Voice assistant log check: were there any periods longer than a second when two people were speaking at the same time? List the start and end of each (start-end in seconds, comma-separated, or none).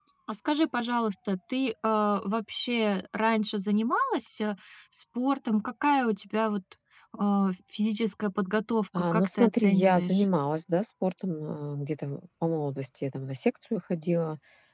9.0-10.2